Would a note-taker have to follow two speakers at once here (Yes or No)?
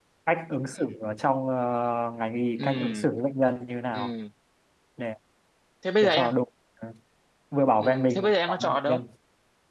Yes